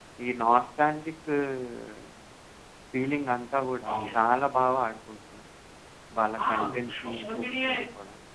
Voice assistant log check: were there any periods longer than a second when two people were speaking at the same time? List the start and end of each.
6.5-7.8

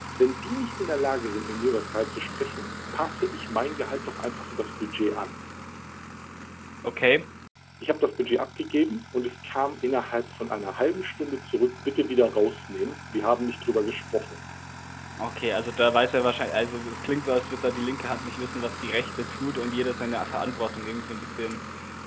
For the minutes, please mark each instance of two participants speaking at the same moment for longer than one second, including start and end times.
none

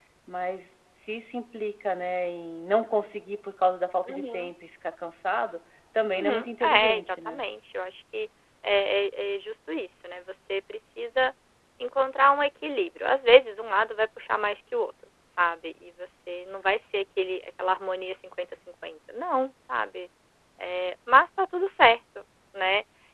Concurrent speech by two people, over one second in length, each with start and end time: 6.1-7.4

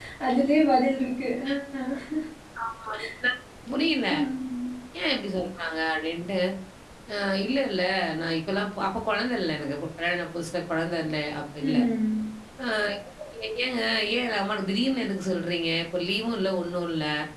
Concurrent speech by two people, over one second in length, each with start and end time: none

